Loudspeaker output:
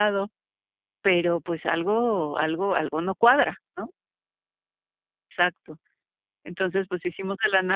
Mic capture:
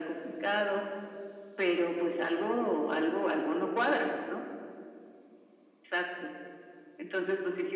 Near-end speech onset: none

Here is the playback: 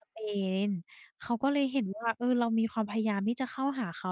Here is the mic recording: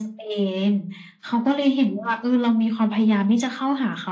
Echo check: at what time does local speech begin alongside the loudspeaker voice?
none

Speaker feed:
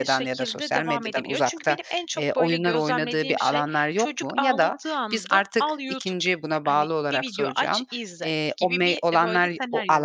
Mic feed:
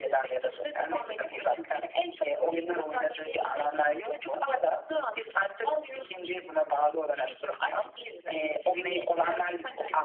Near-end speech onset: 8.3 s

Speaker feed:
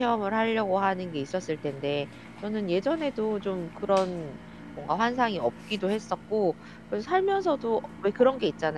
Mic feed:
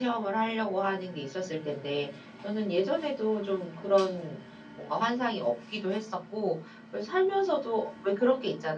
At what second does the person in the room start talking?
none

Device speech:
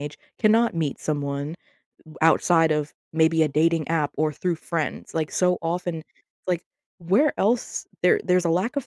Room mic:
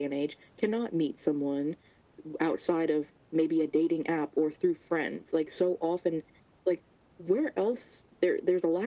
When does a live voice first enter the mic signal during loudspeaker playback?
none

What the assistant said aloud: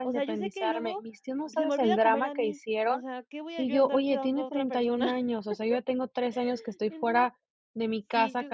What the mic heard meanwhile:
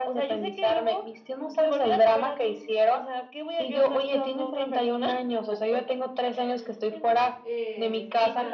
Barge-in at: 7.4 s

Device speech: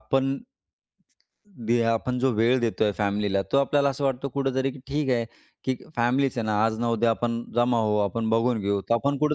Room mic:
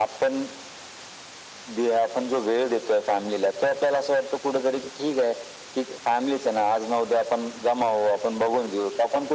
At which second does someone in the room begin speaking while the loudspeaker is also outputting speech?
none

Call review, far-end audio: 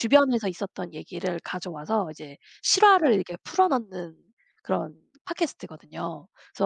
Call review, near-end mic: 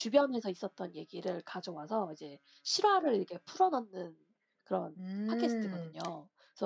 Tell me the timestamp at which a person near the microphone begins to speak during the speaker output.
5.0 s

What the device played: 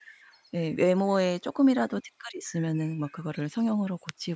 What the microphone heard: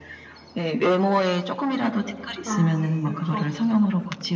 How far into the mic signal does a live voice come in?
2.4 s

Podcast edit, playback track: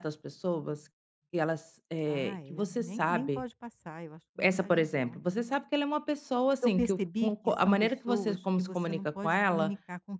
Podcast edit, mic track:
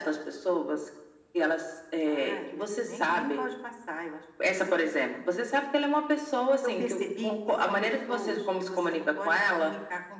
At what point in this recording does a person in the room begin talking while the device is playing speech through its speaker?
none

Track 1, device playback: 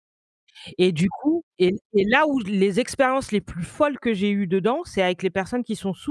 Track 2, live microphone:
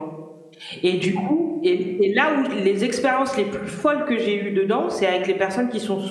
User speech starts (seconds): none

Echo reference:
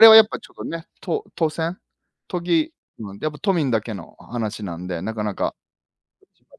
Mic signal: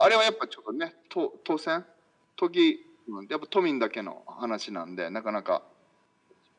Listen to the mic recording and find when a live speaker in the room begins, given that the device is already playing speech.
none

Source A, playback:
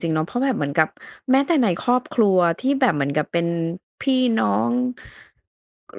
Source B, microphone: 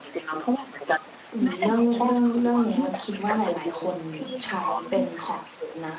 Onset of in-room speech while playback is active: 1.3 s

